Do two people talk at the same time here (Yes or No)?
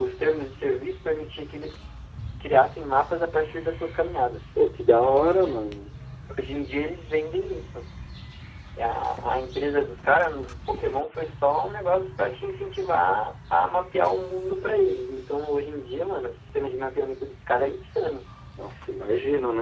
No